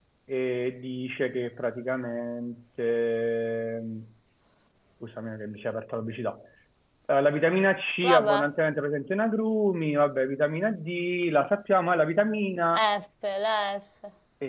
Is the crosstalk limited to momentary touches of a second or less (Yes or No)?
Yes